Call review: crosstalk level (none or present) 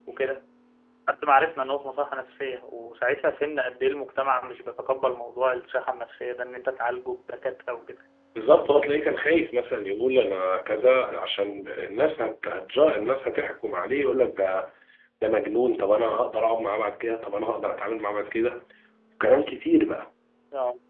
none